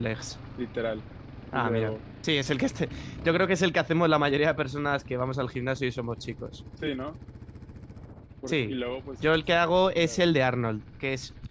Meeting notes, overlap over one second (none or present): none